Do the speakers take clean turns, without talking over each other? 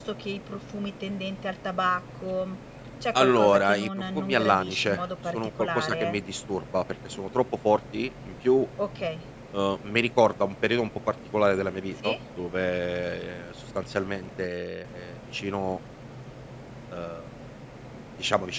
No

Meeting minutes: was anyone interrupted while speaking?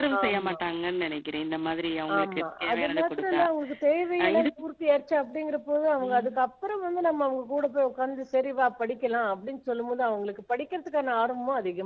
Yes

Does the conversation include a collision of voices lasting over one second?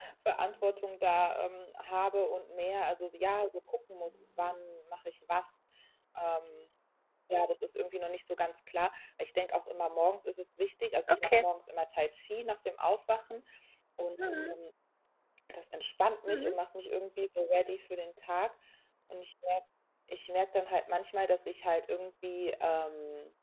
No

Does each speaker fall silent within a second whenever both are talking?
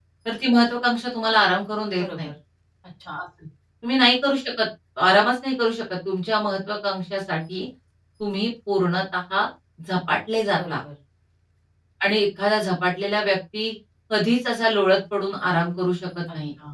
Yes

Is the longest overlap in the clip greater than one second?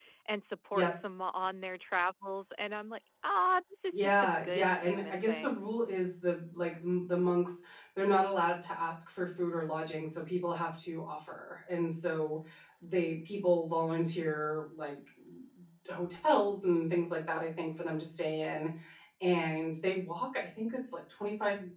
Yes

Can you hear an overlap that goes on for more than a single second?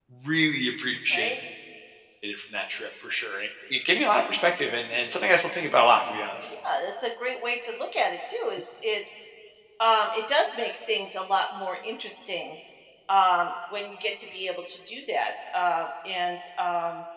No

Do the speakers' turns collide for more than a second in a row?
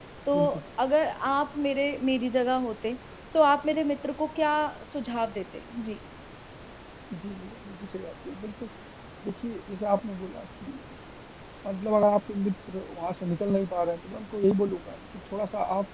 No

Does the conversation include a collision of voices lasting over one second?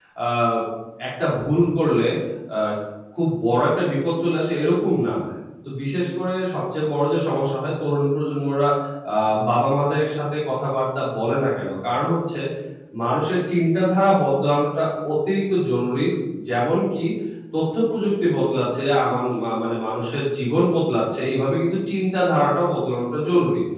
No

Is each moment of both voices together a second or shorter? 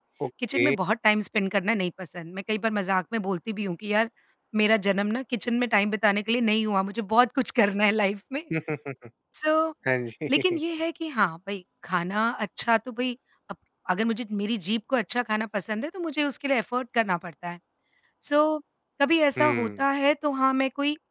Yes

